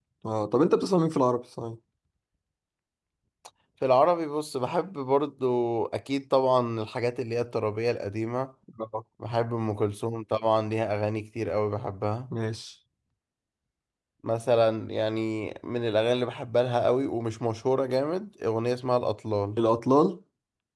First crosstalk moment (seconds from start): none

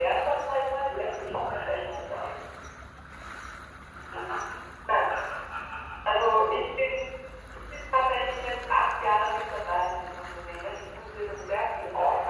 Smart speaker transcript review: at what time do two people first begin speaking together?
0.8 s

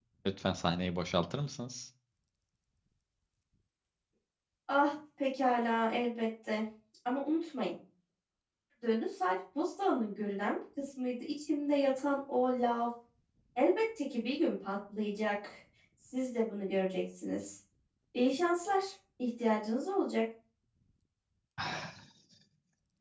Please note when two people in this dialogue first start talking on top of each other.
none

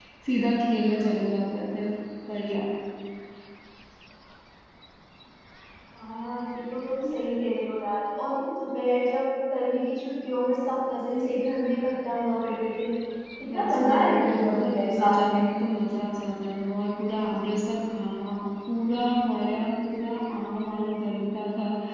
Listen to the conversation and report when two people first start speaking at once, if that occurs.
13.5 s

